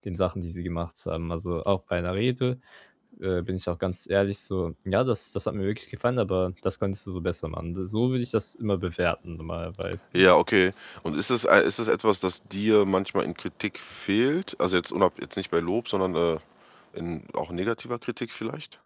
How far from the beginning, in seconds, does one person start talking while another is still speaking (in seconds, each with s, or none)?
none